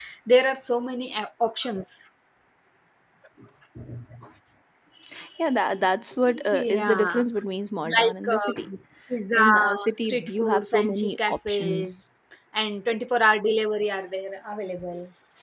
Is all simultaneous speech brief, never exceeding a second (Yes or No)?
No